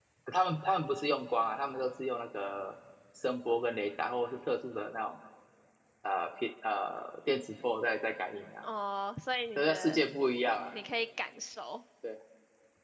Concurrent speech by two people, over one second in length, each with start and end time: none

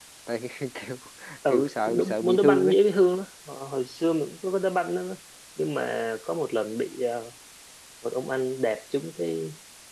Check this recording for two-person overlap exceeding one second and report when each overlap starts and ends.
1.5-2.7

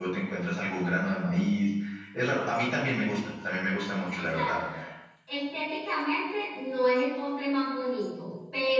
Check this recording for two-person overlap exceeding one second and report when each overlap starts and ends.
none

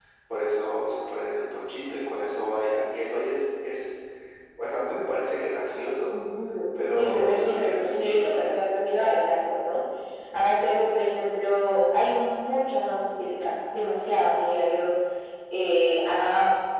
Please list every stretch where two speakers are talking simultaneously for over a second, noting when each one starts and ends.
7.0-8.3

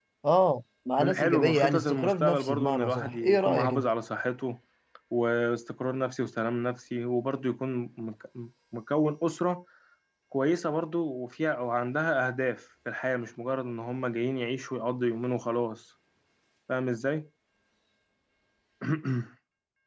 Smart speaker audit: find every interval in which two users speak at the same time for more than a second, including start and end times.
1.0-3.9

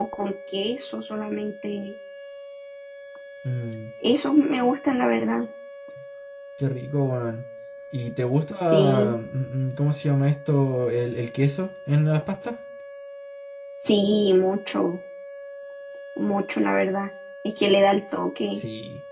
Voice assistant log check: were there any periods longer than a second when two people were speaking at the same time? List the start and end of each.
none

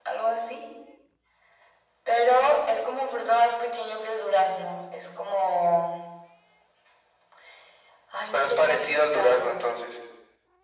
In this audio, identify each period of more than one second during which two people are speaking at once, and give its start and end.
8.3-9.6

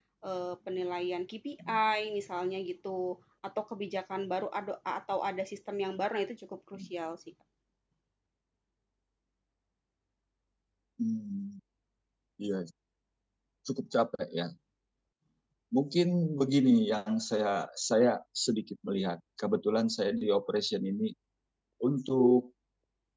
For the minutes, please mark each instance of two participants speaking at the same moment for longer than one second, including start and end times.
none

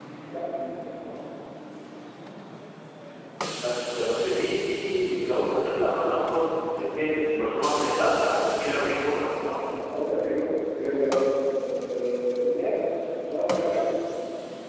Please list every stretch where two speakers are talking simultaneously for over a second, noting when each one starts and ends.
none

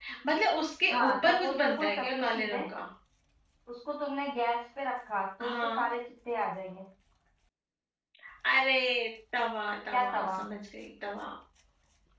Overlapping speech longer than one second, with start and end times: 0.9-2.6

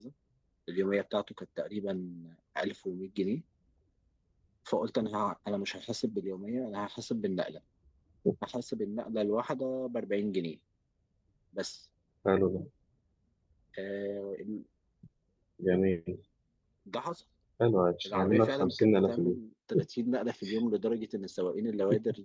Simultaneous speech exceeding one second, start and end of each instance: 18.1-19.4

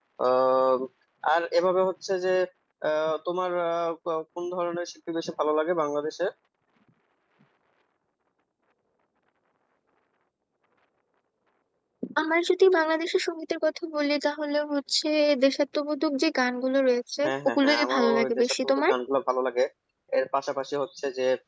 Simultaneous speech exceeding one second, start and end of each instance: 17.2-18.9

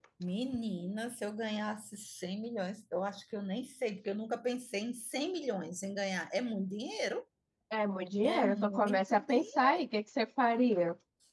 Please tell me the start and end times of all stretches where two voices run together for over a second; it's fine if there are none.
8.2-9.8

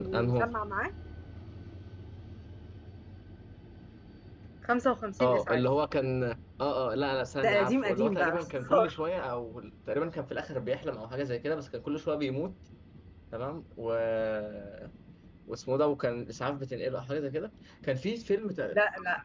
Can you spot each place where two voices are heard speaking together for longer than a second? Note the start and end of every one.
7.4-8.9

